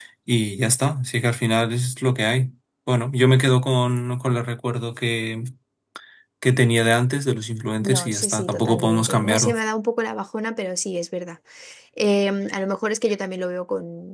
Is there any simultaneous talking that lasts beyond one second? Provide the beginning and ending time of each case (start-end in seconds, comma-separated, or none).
7.8-9.6